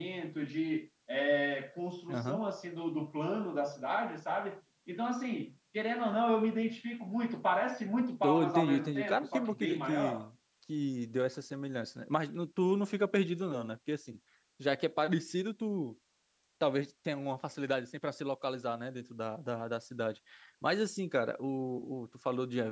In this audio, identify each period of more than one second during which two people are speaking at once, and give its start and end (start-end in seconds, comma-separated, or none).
8.2-10.3